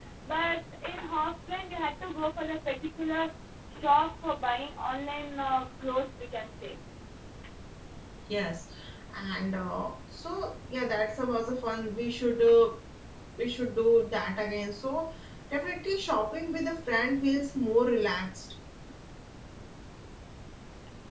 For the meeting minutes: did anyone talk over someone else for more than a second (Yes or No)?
No